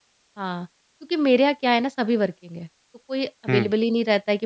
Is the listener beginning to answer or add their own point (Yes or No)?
No